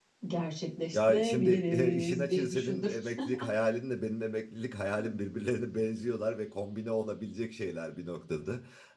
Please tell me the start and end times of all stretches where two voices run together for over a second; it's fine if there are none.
0.9-2.9

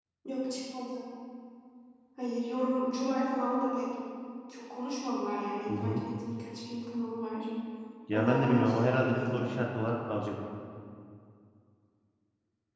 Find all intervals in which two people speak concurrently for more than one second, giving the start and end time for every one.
8.1-9.4

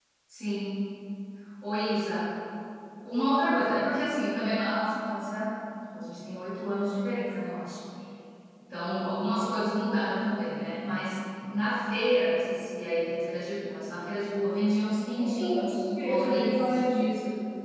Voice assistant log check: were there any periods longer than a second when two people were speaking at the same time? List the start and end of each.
15.3-16.8

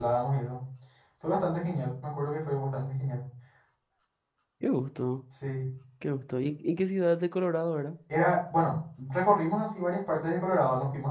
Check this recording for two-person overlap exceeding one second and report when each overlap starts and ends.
none

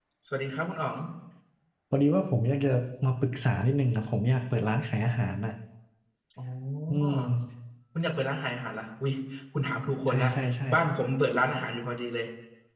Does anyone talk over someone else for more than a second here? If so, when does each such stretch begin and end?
none

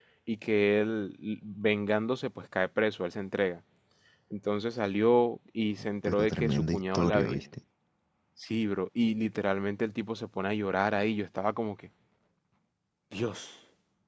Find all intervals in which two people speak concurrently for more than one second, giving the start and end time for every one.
6.0-7.4

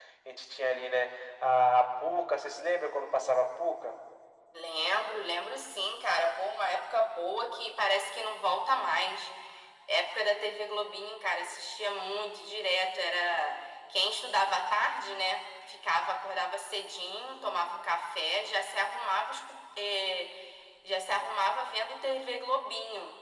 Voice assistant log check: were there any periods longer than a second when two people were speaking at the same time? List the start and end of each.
none

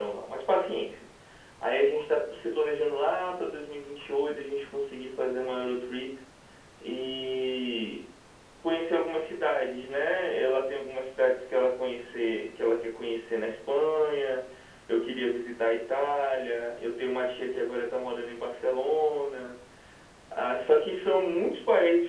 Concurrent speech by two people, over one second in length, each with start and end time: none

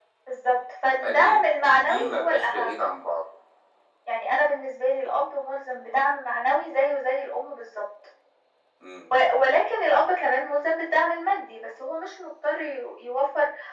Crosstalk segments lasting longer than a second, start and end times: 0.9-2.8

